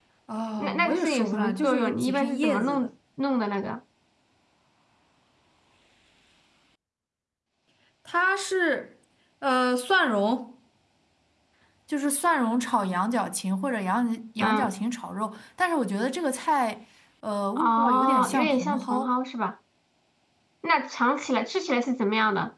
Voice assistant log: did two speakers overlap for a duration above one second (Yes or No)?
Yes